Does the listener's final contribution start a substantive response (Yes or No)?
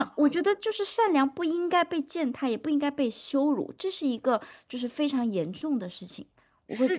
Yes